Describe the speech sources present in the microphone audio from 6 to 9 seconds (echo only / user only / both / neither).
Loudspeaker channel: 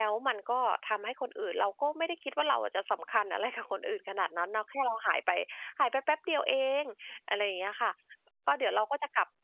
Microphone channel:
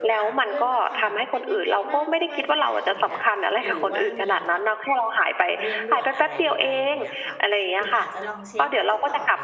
both